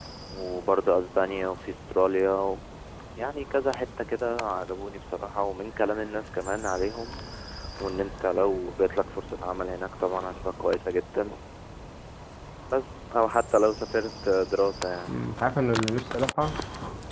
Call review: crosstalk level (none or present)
none